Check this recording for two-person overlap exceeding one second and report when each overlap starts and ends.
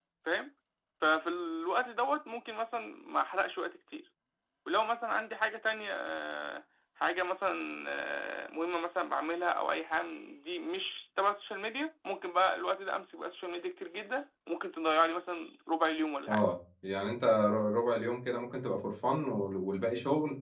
none

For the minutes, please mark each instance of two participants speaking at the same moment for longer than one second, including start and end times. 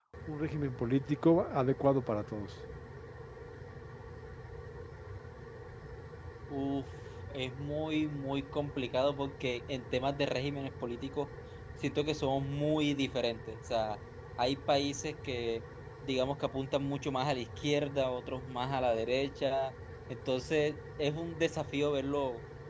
none

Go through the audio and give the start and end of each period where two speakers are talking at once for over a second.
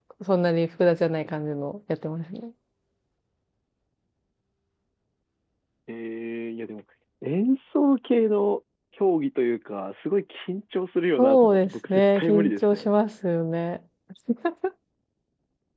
11.2-12.9

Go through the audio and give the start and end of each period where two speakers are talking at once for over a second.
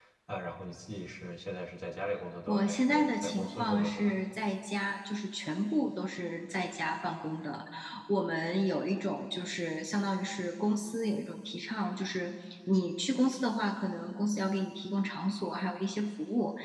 2.5-4.1

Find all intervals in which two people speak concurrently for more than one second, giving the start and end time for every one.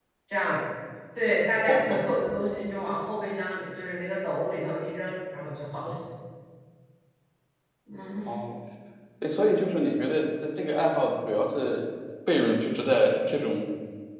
none

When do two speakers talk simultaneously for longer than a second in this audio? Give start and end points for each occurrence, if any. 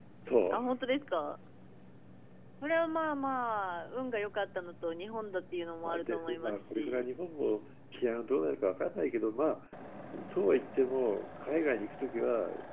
5.8-7.0

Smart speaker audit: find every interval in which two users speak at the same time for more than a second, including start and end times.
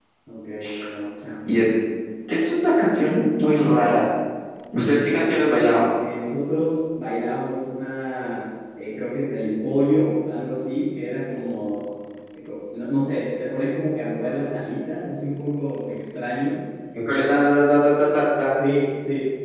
none

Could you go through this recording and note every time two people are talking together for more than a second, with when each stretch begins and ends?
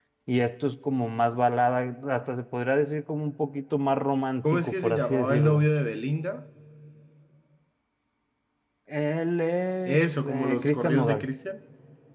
4.4-5.7, 9.9-11.3

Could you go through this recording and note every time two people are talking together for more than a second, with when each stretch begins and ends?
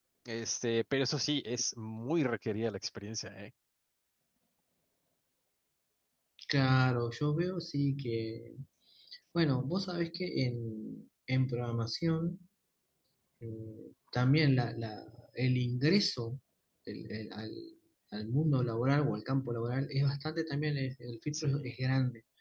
none

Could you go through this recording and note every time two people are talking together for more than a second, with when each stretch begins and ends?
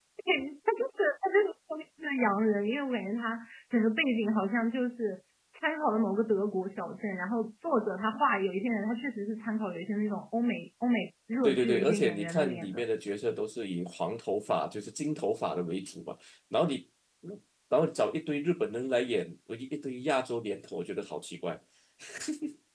11.4-12.8

